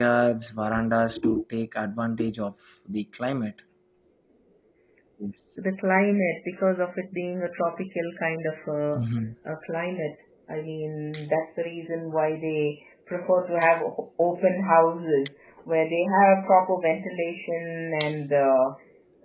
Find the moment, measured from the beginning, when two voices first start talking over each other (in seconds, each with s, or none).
none